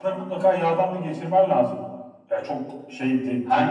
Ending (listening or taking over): listening